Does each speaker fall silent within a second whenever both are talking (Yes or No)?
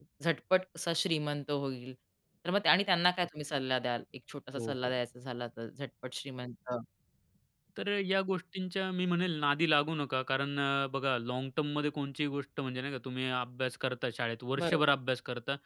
Yes